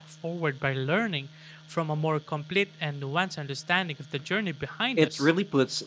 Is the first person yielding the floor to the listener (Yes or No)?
Yes